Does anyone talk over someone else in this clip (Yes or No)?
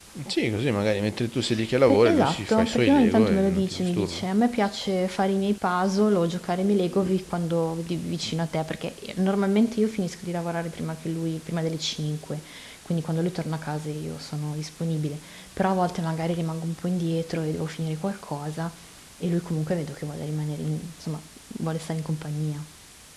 Yes